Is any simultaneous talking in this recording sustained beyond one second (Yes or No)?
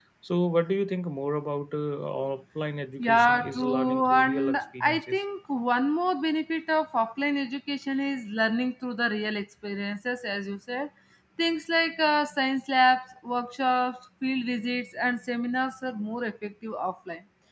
Yes